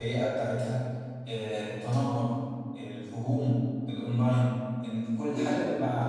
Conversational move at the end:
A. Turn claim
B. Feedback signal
B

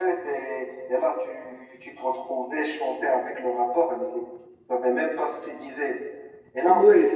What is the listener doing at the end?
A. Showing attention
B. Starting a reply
A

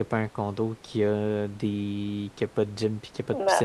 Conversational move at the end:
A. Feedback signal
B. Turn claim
B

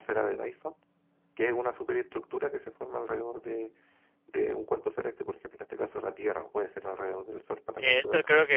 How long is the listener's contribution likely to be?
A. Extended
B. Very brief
A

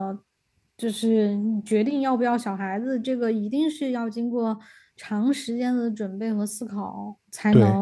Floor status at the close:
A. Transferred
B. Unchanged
B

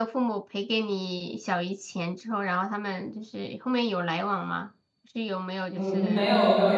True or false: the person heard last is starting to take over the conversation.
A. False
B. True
B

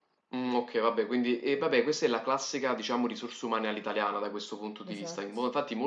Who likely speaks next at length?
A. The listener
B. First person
B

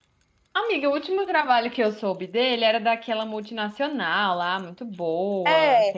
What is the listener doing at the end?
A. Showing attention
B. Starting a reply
B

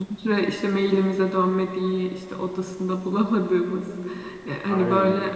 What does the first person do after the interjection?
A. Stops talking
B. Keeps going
B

